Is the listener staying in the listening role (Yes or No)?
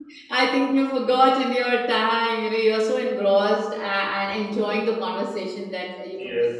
No